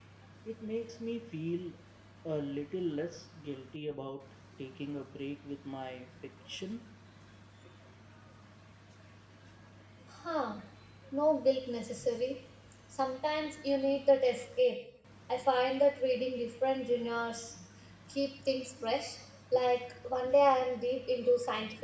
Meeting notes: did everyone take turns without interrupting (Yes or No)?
Yes